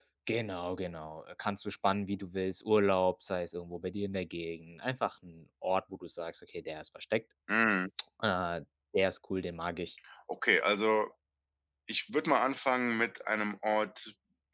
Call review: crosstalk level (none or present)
none